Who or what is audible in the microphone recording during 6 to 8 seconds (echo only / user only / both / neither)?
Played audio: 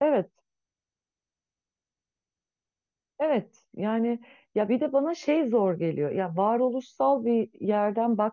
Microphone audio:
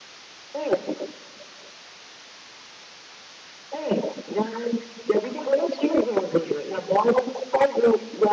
echo only